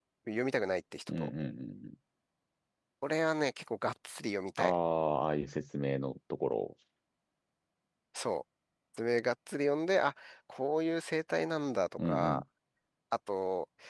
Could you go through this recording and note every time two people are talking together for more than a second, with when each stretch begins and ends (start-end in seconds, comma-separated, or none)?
none